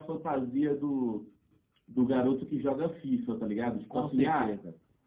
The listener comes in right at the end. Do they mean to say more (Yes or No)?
No